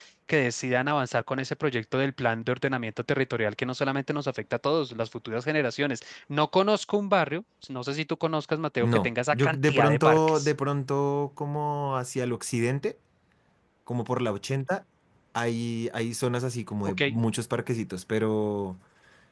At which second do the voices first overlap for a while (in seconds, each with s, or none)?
8.8 s